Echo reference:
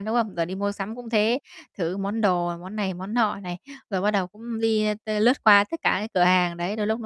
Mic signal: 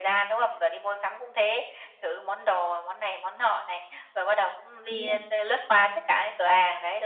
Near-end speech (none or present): present